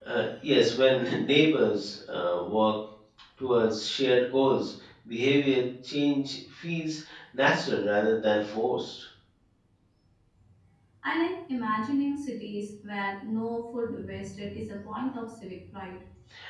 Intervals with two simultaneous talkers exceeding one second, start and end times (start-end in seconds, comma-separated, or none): none